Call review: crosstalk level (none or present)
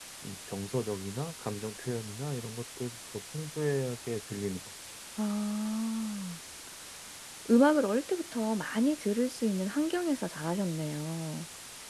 none